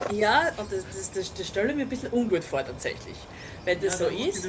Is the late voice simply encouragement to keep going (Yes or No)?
No